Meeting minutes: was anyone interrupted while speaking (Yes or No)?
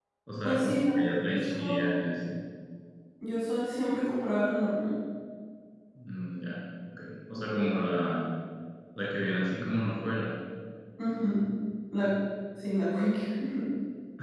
Yes